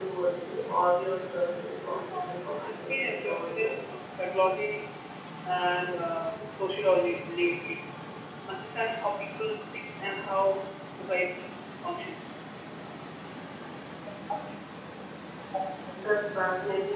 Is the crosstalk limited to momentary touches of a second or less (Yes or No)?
No